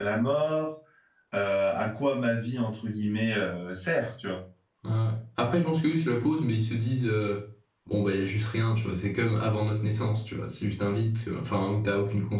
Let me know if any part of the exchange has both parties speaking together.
No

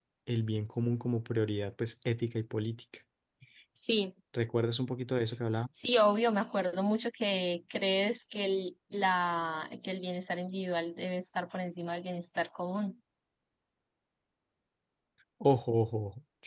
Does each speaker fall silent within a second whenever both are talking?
Yes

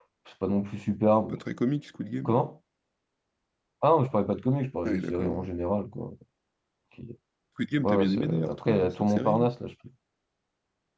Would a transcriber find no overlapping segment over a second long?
No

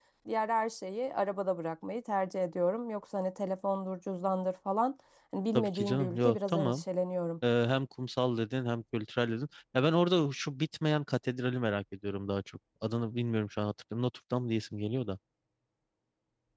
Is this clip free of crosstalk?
No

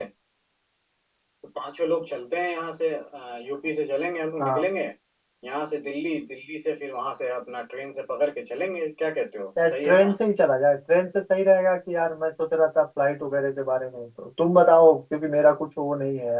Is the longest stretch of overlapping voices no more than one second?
Yes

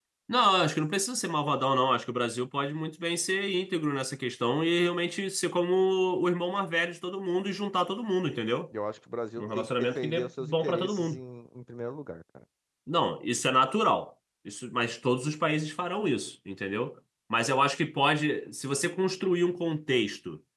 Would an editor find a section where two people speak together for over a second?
Yes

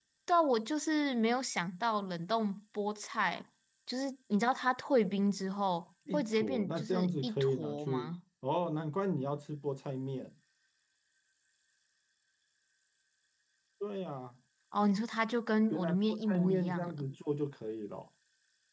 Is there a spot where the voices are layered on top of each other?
Yes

